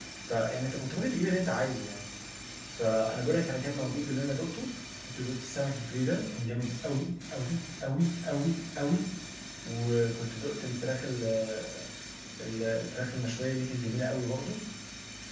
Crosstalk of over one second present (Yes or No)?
No